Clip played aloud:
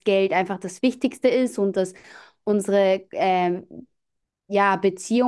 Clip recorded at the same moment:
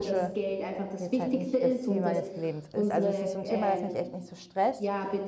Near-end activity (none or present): present